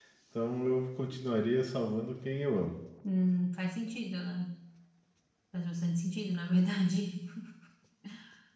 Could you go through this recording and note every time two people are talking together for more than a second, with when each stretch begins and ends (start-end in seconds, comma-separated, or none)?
none